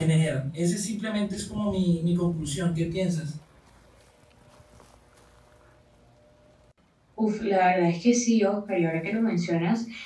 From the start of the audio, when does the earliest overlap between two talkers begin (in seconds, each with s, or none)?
none